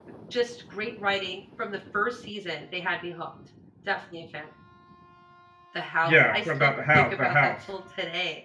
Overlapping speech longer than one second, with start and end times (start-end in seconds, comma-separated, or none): 6.0-7.5